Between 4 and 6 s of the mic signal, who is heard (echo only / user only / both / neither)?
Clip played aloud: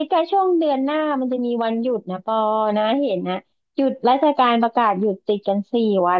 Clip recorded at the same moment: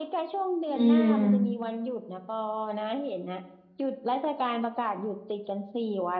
echo only